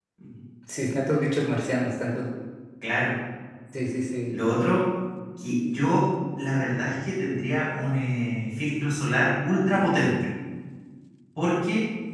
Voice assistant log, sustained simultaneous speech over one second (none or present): none